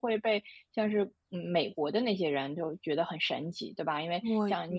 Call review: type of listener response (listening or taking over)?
listening